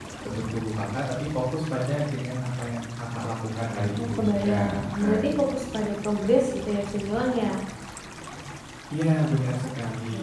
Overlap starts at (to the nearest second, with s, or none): 4 s